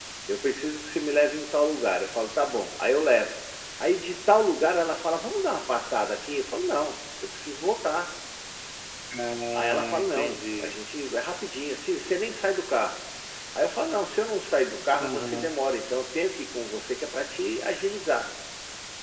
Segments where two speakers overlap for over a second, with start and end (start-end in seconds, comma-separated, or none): 9.6-10.8